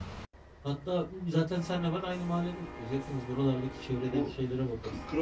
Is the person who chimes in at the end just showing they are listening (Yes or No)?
No